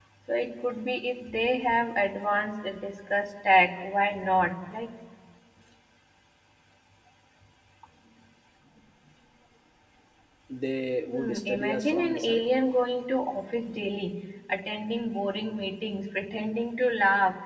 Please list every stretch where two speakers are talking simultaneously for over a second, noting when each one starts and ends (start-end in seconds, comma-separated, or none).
11.1-12.4